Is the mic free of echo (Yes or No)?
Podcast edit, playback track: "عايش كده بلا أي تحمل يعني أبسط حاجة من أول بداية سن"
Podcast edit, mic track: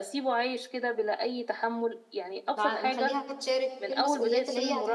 No